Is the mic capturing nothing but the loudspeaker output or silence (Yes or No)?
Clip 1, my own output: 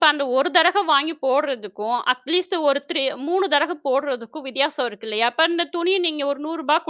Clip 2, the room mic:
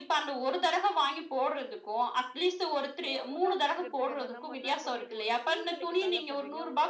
No